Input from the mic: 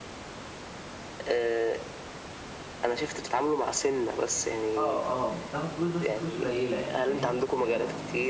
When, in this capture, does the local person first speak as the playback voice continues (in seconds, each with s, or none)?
4.8 s